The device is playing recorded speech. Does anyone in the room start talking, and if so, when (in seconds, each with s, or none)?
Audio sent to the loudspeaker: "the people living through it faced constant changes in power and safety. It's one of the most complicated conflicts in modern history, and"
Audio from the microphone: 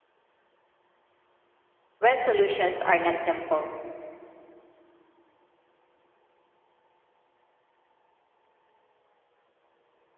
2.0 s